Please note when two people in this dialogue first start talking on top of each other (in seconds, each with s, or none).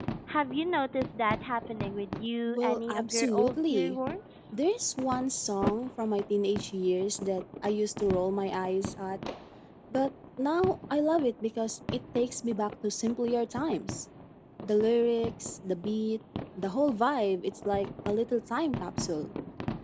2.5 s